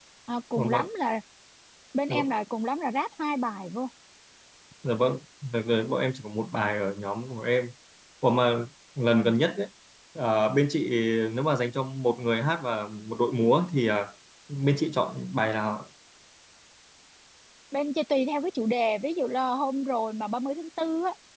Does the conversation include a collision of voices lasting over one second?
No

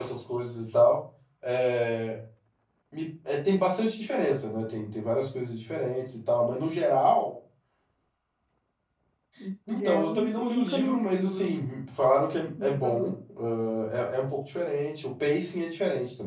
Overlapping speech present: Yes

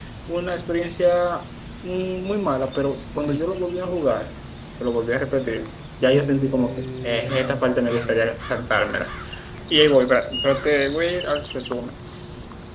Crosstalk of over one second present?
Yes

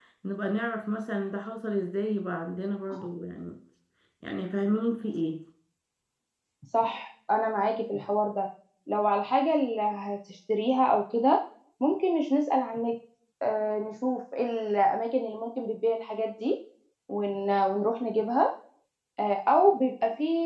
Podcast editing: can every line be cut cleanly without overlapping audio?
Yes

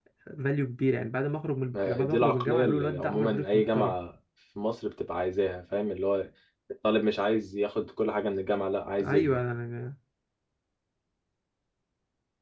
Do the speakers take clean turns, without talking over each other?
No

